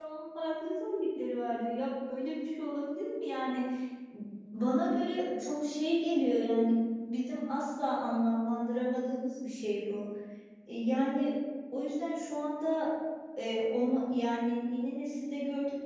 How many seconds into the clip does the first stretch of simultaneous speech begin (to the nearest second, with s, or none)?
none